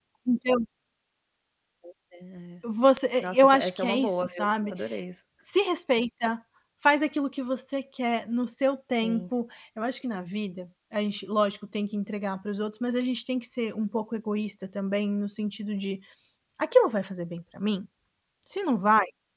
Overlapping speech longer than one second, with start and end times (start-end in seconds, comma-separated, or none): 3.2-4.7